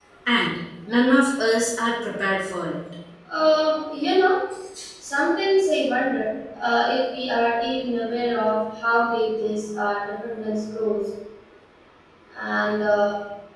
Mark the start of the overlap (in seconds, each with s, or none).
none